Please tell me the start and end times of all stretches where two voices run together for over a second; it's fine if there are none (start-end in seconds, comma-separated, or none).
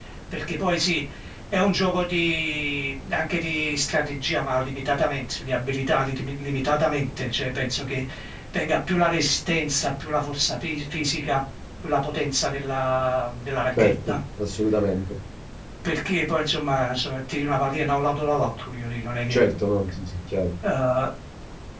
none